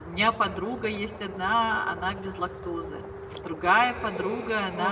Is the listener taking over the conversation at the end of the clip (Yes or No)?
No